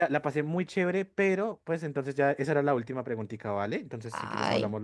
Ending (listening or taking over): taking over